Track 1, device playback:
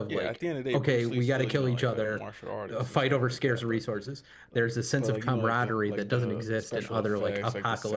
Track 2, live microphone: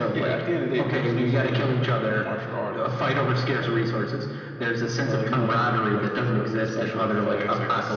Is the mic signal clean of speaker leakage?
No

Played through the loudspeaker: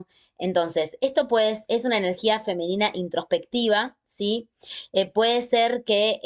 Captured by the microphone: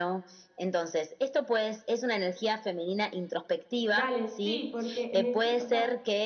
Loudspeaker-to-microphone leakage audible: Yes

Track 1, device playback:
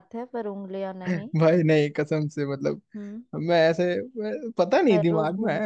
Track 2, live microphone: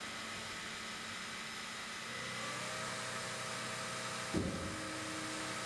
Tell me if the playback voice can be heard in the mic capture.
No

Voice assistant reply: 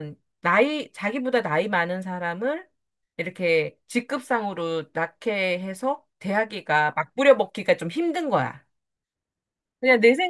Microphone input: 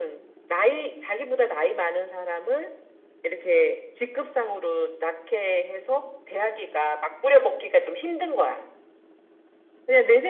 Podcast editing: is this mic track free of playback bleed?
No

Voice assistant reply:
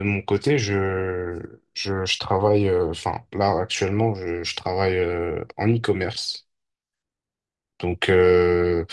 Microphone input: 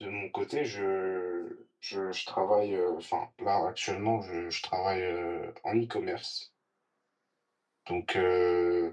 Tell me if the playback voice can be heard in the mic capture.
Yes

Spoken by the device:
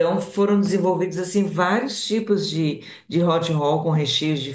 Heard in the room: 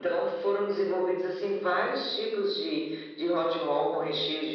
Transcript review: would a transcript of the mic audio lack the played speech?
No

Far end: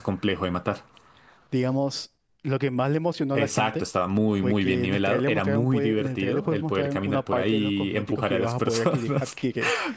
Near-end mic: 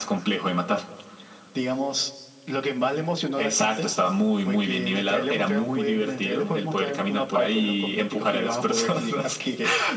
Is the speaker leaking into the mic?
Yes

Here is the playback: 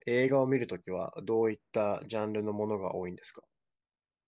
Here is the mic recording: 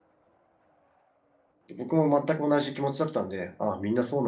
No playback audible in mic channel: Yes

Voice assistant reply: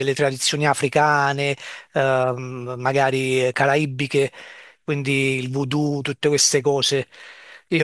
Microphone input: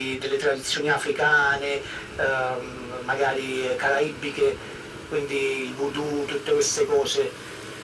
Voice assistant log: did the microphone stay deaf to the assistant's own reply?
No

